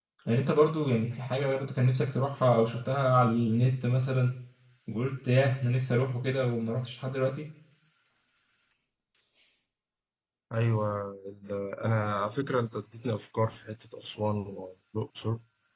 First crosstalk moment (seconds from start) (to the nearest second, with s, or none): none